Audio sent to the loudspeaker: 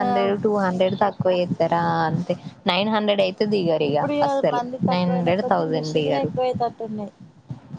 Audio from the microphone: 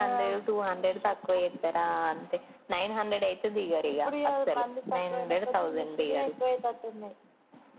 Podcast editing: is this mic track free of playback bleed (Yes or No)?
No